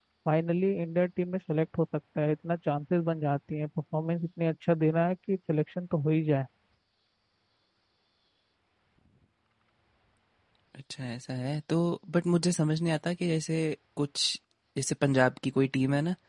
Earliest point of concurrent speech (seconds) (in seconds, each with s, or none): none